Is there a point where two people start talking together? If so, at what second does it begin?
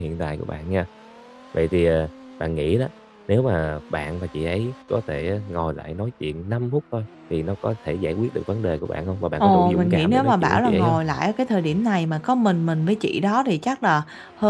9 s

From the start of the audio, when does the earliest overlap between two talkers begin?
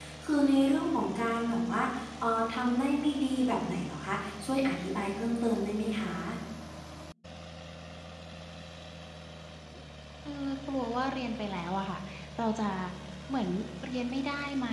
none

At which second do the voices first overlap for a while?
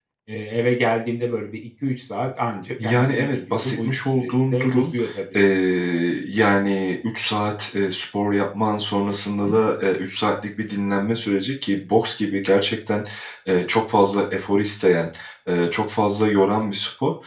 3 s

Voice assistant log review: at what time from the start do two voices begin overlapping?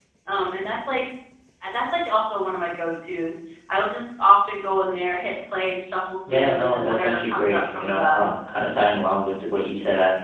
6 s

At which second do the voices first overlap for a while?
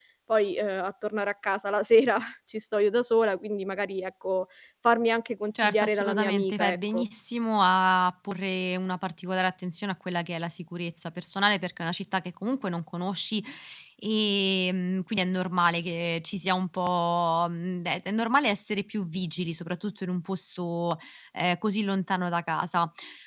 6 s

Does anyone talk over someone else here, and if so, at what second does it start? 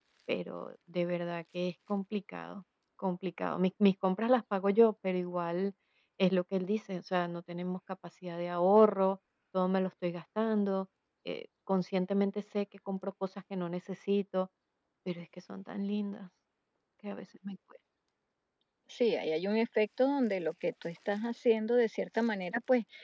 none

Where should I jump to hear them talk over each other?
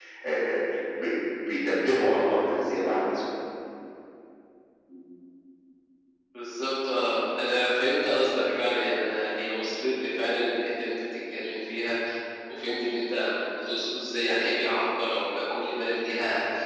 none

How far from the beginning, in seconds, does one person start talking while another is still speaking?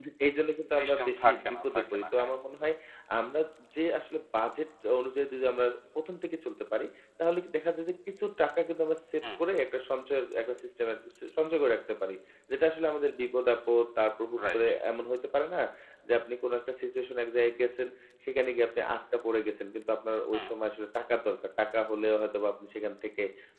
1 s

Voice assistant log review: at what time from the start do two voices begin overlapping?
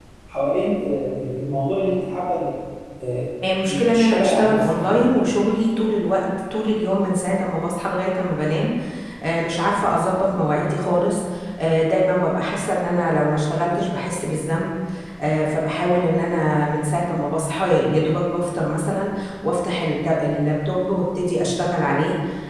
4 s

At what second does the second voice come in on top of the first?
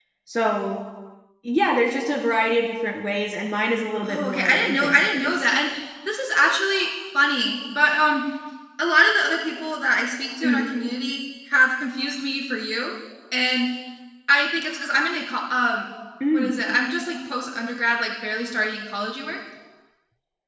4 s

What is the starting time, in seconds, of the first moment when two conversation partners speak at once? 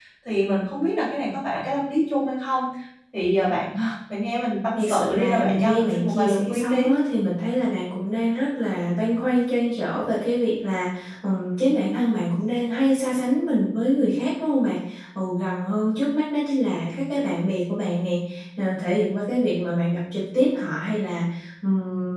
5 s

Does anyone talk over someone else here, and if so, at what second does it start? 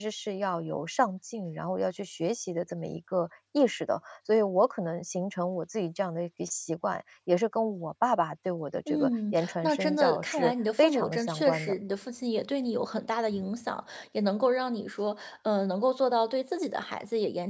9 s

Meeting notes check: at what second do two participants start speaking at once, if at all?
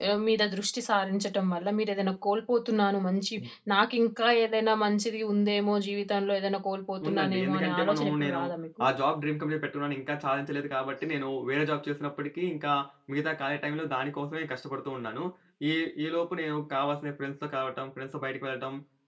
7 s

